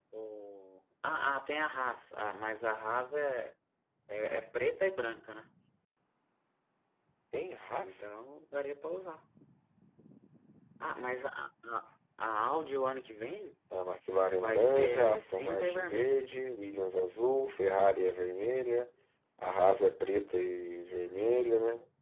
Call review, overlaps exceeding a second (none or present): present